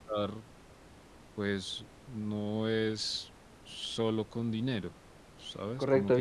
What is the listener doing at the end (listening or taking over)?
taking over